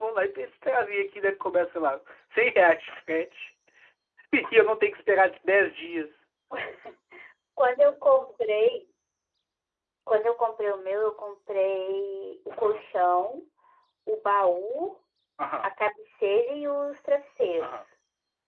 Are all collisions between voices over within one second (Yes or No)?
Yes